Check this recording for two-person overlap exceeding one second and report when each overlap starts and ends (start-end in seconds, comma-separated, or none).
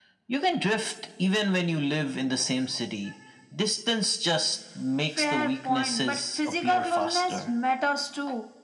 5.2-7.4